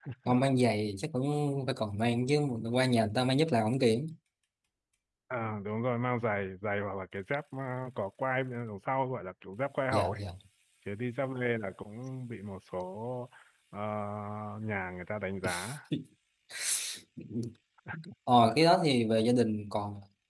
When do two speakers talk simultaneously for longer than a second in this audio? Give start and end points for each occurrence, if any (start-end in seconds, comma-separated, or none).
none